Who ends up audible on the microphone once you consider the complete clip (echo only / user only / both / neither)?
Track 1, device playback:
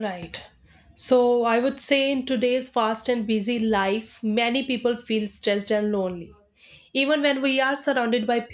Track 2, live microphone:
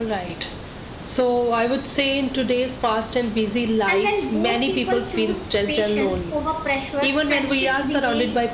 both